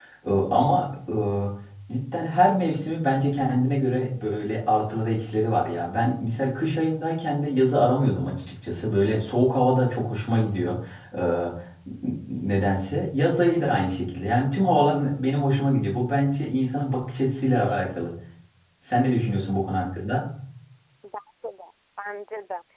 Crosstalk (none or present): none